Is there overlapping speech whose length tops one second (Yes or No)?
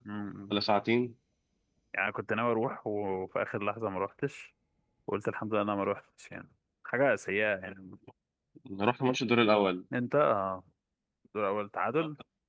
No